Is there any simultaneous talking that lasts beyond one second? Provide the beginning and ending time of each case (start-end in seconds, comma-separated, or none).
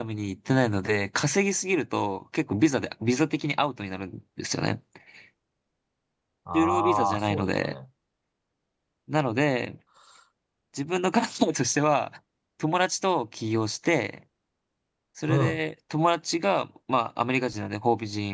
6.5-7.7